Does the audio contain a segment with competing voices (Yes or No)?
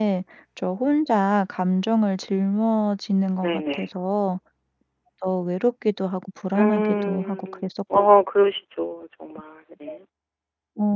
Yes